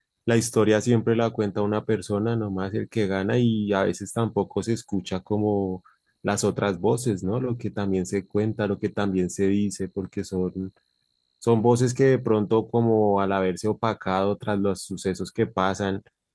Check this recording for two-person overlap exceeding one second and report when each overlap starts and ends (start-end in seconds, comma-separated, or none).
none